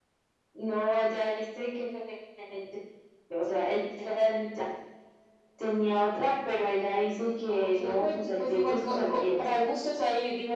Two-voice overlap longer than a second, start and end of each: 7.5-9.3

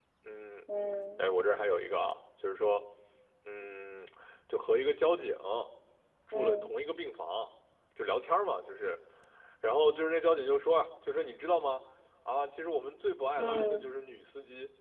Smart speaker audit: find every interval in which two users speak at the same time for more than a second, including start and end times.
none

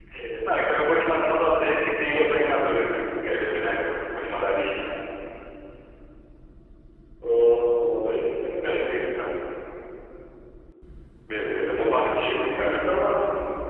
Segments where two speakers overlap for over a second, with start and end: none

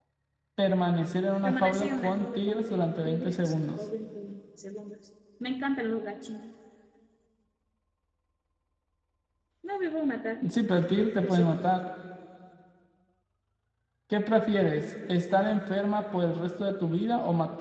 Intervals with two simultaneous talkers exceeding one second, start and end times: 1.4-3.8

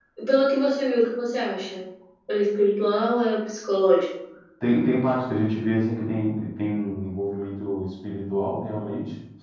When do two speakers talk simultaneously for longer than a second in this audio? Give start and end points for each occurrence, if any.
none

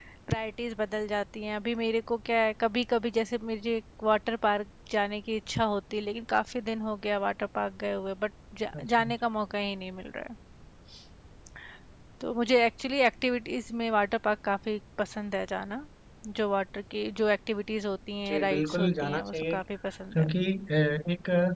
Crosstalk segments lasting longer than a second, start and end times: 18.3-19.5

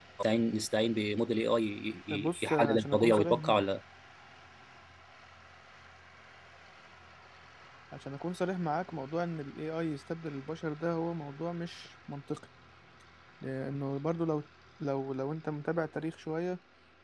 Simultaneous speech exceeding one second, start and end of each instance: 2.2-3.6

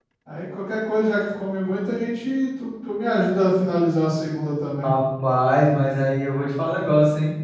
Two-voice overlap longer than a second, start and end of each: none

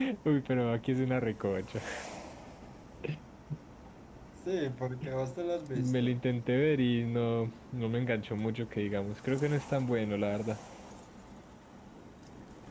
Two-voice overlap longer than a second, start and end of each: none

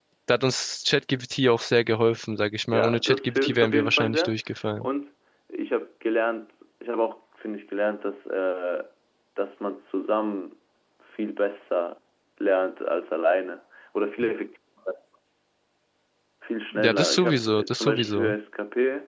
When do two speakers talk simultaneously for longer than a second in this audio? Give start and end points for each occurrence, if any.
2.7-4.3, 16.7-18.3

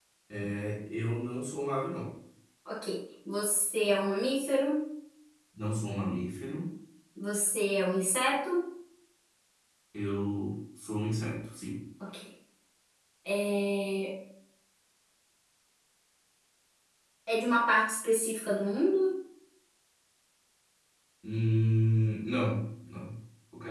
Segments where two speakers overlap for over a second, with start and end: none

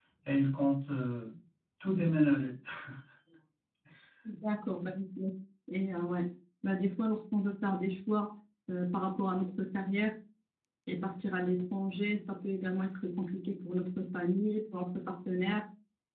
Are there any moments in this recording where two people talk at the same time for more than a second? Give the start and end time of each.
none

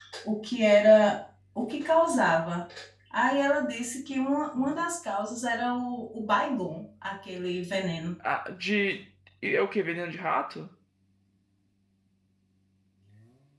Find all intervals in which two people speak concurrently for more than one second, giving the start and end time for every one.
none

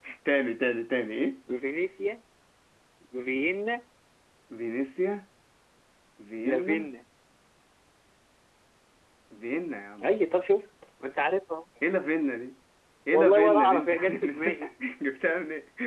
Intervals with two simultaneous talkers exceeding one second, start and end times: 13.1-14.5

